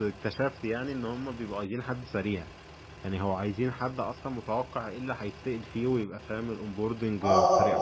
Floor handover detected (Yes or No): Yes